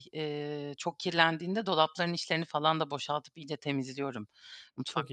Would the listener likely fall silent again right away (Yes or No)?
Yes